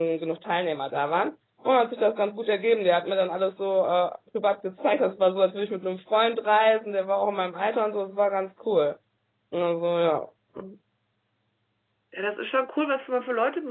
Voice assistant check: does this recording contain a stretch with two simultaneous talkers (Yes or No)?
No